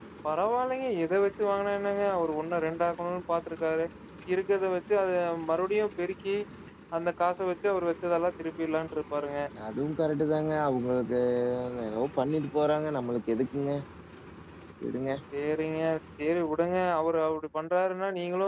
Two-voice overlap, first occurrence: none

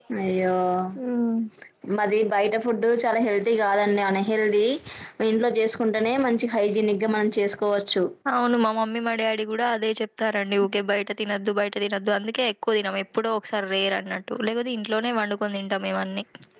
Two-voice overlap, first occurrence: none

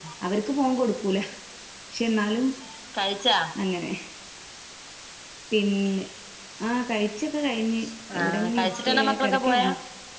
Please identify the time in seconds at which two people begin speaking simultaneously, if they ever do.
8 s

